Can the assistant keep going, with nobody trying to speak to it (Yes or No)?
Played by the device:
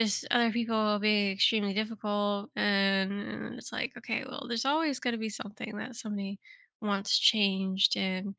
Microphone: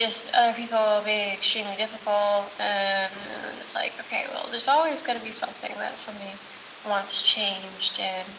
Yes